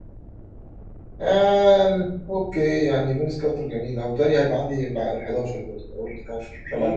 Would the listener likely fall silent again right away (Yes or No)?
No